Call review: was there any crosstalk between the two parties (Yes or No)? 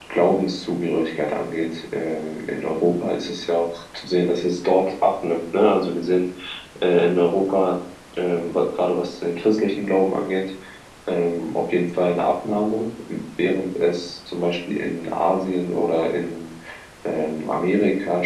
No